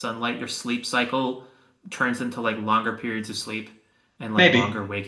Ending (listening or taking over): listening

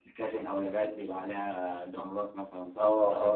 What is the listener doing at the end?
taking over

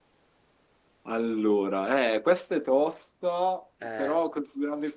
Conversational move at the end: listening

